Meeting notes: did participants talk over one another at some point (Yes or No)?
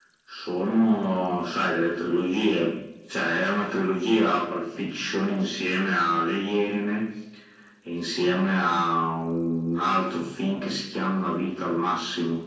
No